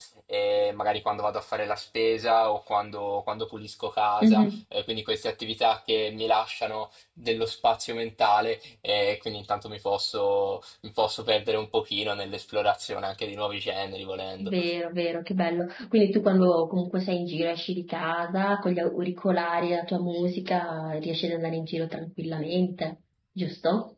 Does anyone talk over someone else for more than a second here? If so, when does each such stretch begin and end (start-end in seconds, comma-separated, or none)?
none